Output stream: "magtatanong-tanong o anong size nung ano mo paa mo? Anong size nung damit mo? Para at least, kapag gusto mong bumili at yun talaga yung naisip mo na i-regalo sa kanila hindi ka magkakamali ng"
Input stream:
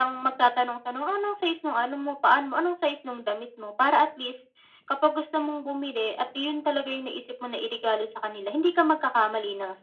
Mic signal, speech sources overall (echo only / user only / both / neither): echo only